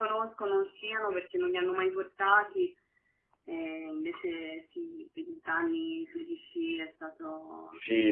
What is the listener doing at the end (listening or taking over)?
taking over